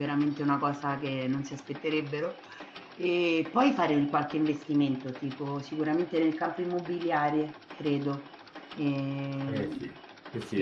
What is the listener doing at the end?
taking over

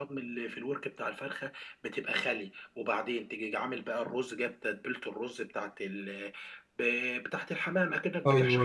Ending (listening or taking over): listening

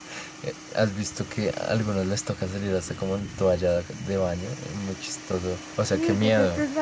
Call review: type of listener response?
taking over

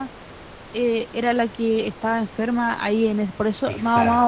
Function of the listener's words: listening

